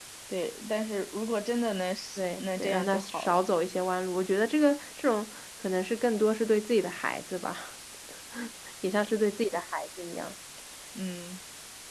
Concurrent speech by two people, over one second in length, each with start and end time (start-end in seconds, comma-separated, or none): 2.2-3.4